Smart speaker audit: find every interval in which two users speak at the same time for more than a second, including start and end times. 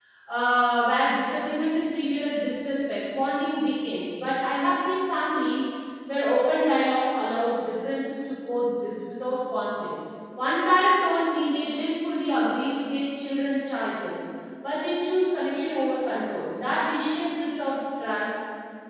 none

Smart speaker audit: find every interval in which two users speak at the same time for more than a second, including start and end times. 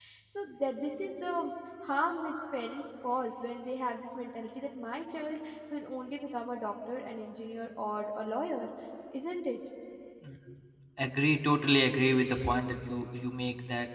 none

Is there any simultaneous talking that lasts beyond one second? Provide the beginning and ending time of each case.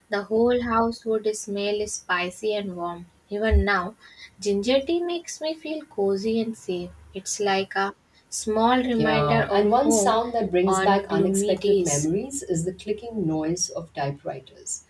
8.9-10.2, 10.7-12.0

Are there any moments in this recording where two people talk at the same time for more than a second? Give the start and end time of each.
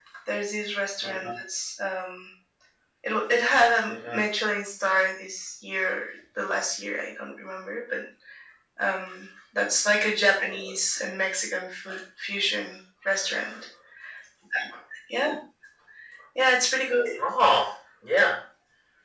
none

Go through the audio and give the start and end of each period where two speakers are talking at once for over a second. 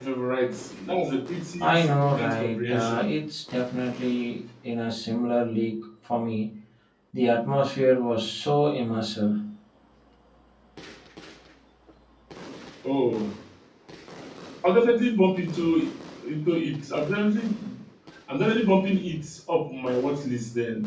1.6-3.1

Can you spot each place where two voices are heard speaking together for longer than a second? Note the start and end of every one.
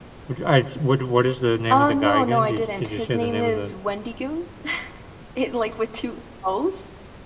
1.7-3.7

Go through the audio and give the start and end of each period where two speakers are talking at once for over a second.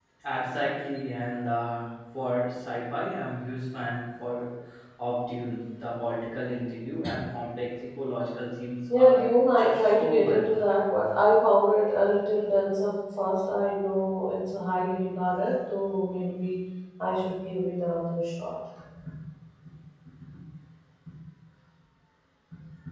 9.0-10.7

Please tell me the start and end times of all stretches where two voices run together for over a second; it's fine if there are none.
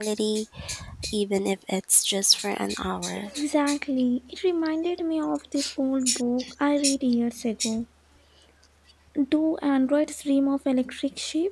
none

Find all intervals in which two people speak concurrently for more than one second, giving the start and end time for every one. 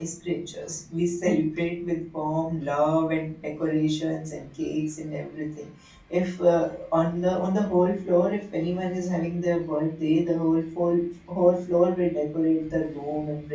none

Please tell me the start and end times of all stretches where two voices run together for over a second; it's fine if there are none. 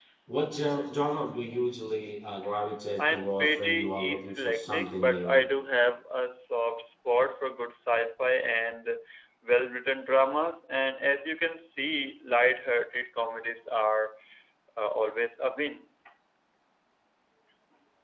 3.0-5.4

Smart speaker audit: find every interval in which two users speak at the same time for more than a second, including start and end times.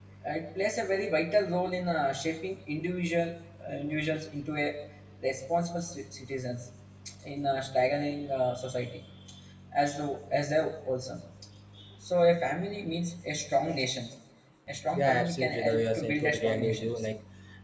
14.9-17.1

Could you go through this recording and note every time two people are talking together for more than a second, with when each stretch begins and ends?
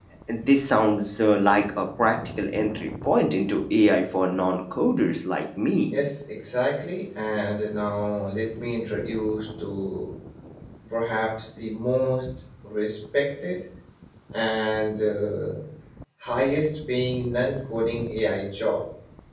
none

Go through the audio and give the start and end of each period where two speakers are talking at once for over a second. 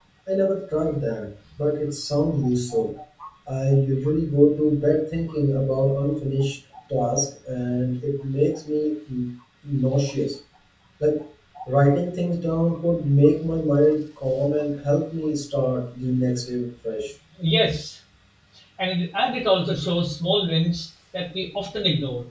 none

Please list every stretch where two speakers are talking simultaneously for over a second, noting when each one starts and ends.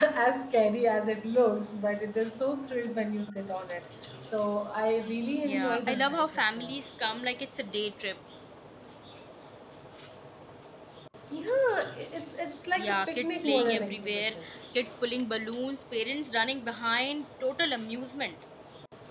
5.4-6.8, 12.8-14.3

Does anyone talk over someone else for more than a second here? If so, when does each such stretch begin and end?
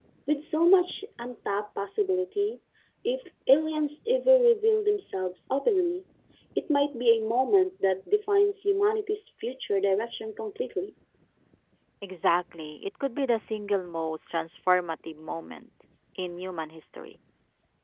none

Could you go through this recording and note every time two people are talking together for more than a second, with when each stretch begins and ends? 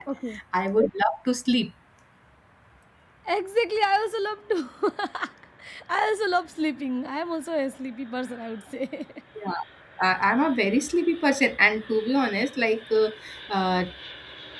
none

